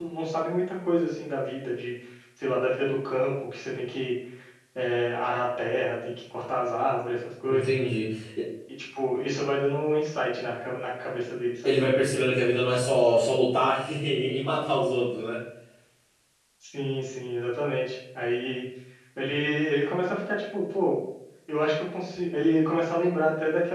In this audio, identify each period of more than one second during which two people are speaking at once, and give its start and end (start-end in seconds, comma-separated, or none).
none